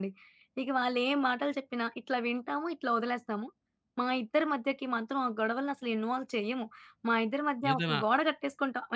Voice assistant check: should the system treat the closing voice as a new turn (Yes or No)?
No